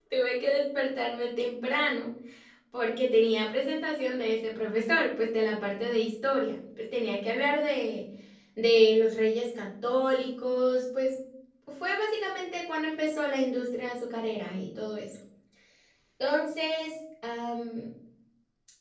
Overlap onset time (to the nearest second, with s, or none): none